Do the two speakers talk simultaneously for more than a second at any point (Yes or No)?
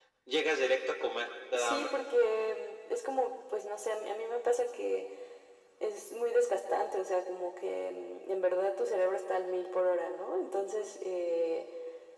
No